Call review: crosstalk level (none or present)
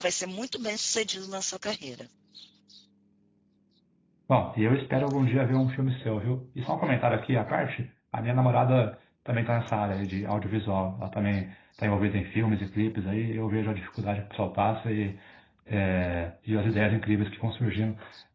none